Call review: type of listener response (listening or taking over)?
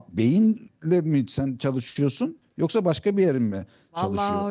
taking over